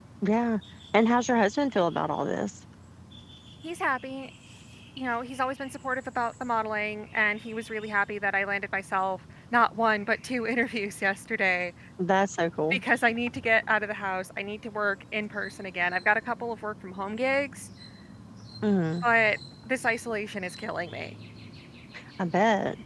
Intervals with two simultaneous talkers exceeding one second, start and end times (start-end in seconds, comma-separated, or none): none